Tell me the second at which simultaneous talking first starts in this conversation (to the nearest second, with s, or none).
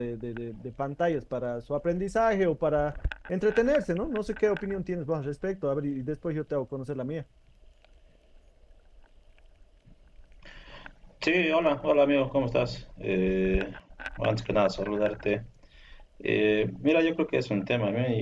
none